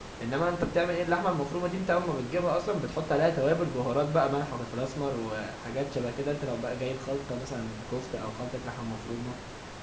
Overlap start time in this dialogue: none

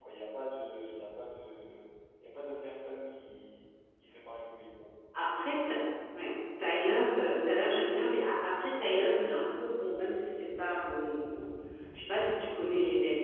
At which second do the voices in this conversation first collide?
none

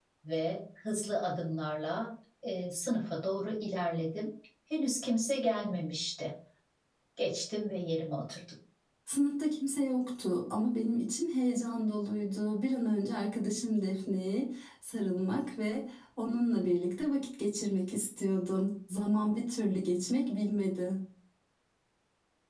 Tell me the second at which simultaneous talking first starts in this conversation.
none

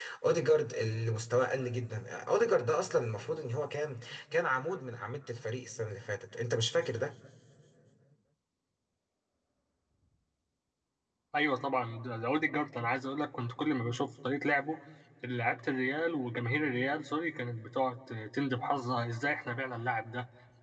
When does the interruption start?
none

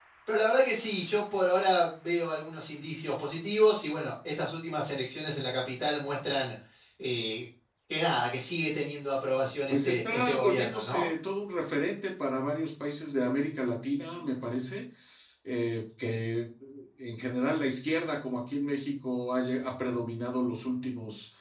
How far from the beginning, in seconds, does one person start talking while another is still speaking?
10 s

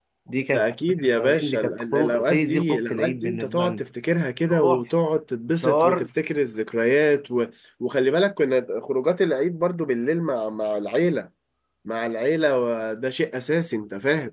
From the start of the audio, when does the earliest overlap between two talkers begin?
1 s

